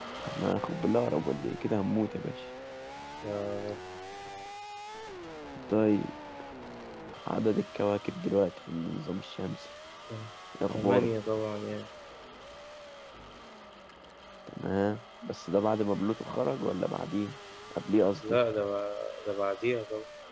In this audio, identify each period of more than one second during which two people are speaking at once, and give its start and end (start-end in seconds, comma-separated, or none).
none